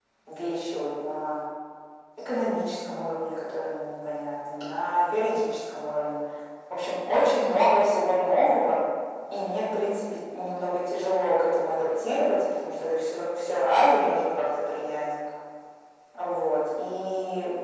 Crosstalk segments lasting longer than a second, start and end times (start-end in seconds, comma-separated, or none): none